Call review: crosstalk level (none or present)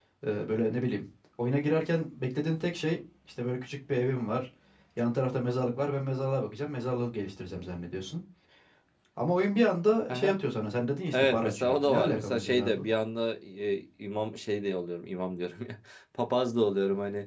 present